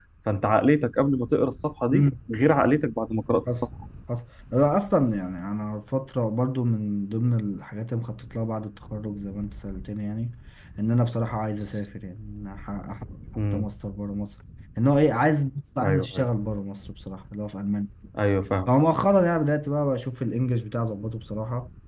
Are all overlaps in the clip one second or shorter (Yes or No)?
Yes